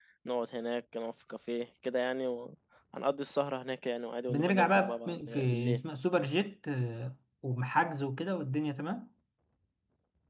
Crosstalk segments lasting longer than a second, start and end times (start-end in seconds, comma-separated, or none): 4.3-5.8